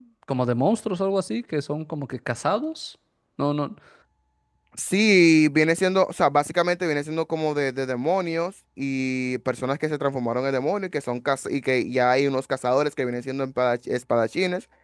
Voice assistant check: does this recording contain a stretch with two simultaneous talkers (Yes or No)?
No